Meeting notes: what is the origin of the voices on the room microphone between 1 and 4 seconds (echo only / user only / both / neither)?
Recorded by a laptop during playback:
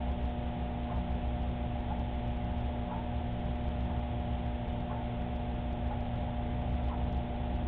neither